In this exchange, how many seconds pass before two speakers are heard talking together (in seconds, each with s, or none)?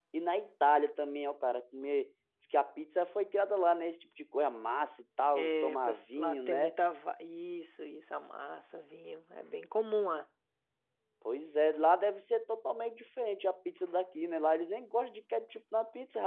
5.3 s